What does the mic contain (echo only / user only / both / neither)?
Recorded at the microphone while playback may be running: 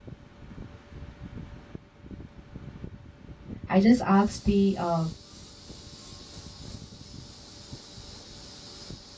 user only